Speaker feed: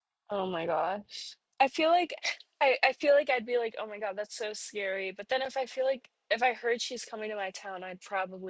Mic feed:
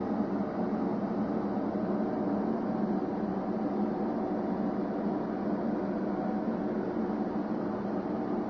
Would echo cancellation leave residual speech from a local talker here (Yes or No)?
No